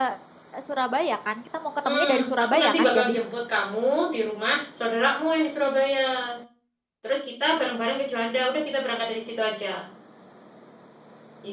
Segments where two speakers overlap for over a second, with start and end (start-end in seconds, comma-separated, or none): 1.8-3.1